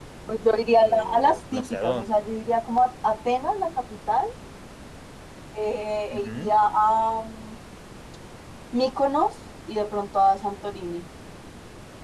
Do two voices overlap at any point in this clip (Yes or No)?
Yes